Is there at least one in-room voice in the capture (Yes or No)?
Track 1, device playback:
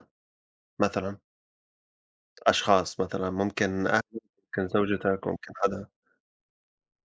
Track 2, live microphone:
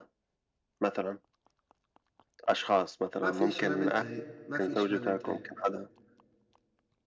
Yes